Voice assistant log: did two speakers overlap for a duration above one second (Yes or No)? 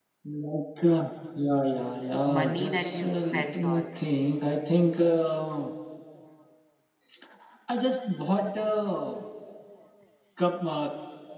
Yes